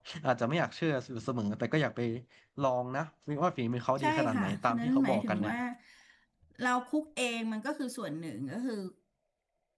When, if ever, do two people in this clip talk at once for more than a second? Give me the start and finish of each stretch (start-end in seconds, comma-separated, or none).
4.0-5.5